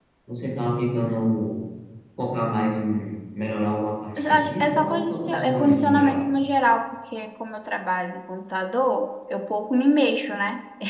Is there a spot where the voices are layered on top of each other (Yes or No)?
Yes